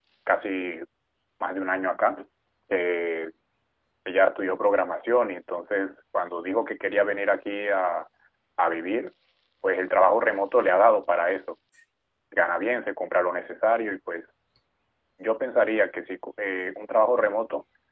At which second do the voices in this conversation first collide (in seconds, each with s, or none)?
none